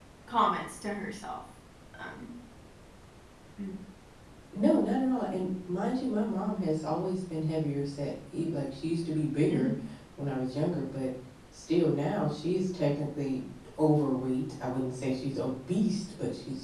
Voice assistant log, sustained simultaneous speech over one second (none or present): none